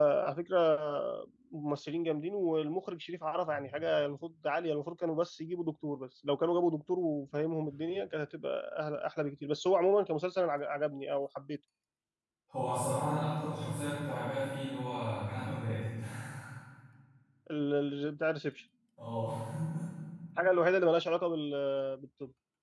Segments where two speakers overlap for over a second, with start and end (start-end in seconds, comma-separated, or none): none